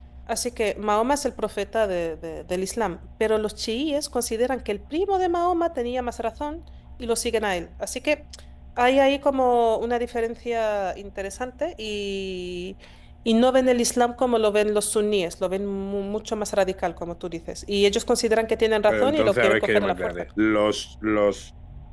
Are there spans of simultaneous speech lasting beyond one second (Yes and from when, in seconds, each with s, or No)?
Yes, from 18.9 s